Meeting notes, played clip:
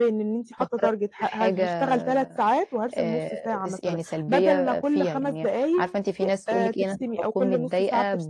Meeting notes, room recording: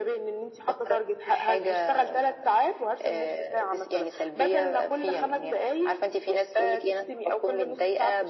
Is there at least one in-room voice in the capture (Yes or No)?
No